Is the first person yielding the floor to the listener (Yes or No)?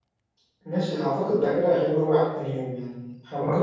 No